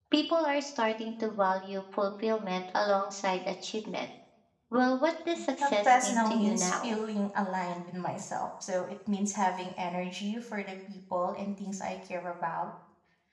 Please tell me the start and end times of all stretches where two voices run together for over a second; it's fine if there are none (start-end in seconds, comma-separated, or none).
5.6-6.9